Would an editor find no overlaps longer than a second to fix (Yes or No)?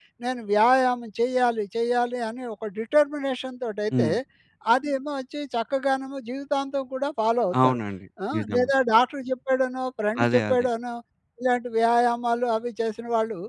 Yes